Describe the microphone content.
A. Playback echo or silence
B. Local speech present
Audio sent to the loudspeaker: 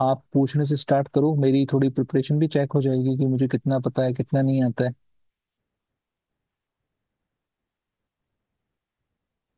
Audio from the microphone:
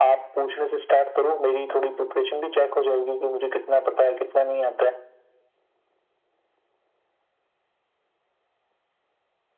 A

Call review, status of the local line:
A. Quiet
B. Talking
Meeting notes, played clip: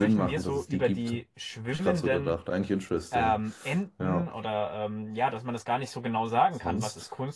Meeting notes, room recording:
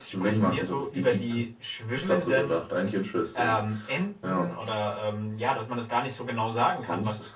A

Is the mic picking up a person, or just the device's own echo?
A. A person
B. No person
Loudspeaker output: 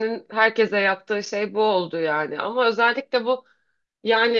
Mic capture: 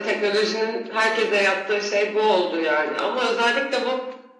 B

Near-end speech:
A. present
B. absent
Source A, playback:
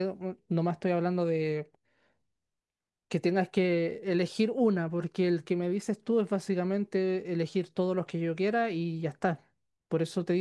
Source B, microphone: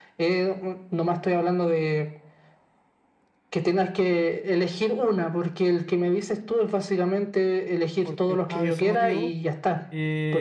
A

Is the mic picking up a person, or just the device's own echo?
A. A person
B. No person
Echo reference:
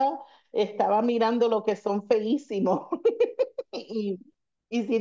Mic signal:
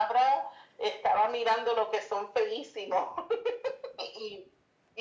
B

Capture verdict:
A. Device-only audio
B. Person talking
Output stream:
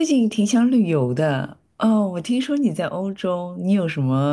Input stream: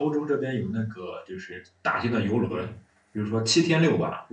B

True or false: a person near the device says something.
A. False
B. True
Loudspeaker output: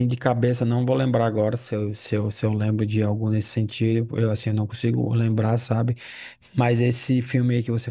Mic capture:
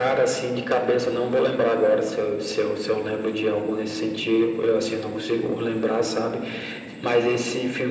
A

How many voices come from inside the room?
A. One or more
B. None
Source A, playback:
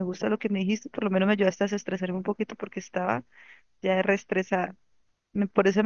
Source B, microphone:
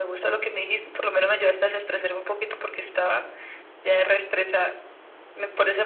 B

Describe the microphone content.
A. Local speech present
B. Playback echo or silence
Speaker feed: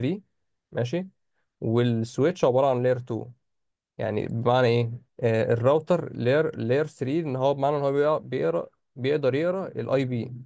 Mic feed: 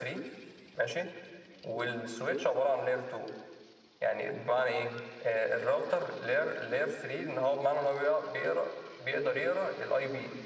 B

